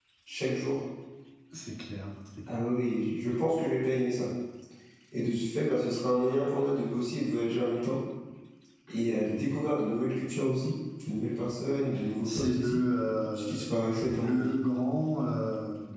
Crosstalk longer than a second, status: none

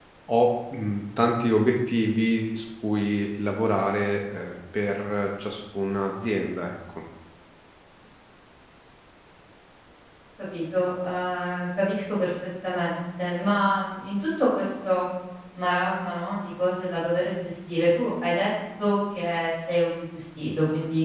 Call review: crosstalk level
none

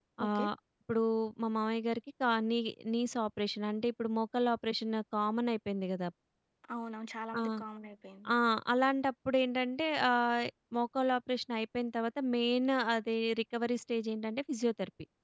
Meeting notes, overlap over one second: none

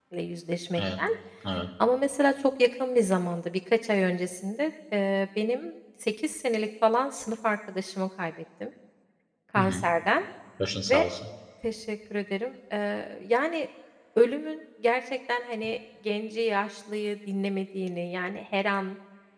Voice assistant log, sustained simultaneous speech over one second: none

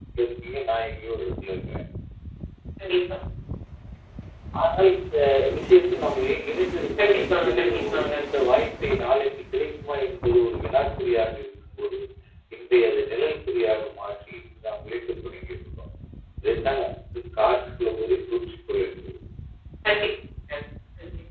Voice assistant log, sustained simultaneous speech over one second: present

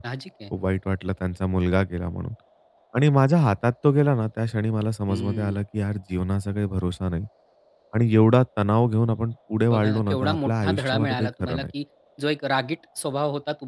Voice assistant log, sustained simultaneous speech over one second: present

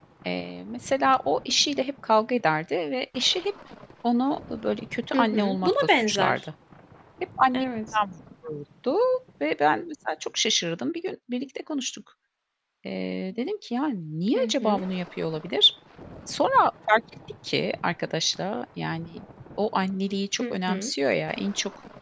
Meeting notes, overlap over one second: present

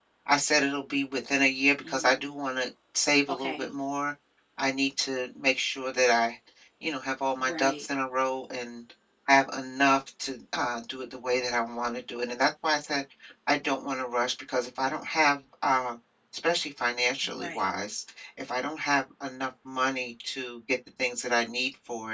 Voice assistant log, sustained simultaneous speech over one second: none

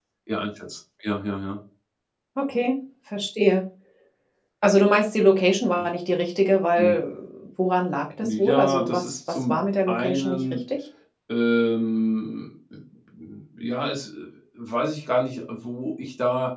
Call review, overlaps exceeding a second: present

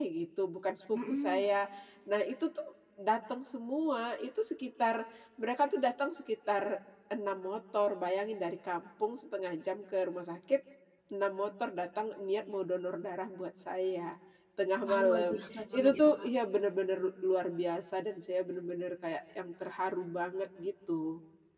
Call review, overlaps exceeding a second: present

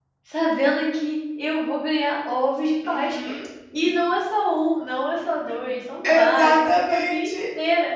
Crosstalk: present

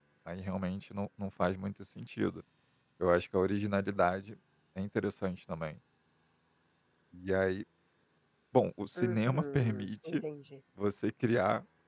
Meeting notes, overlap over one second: present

